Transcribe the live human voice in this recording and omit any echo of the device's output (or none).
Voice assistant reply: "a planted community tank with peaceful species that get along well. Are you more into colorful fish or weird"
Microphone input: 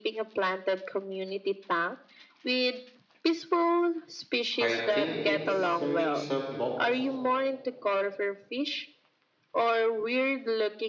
I think it's a mix of both